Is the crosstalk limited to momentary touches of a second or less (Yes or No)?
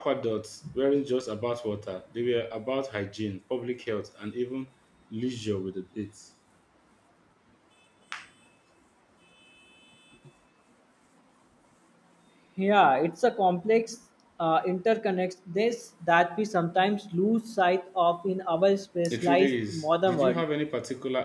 No